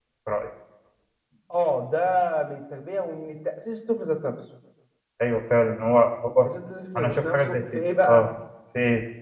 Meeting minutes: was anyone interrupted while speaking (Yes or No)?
Yes